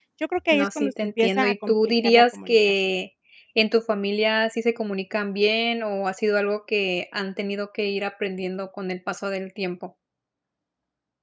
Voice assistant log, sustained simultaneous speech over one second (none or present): present